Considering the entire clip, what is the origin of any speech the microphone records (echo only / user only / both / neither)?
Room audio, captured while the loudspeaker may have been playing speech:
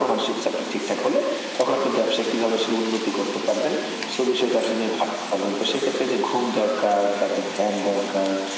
echo only